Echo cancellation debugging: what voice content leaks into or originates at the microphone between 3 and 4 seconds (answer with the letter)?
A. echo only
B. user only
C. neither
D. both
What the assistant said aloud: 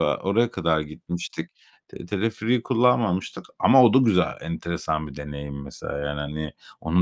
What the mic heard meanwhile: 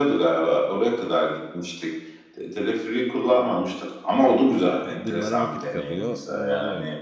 A